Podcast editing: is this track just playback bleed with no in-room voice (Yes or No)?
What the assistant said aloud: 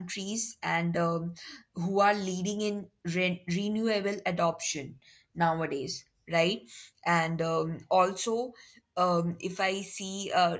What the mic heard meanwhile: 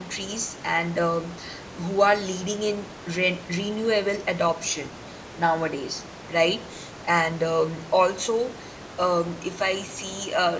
Yes